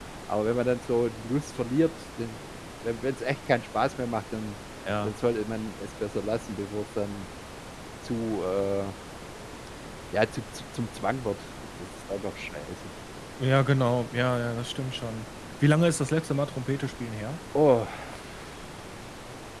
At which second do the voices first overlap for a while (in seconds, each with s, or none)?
none